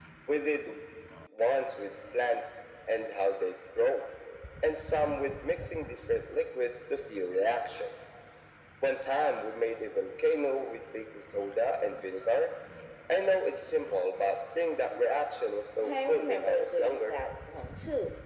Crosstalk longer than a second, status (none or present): present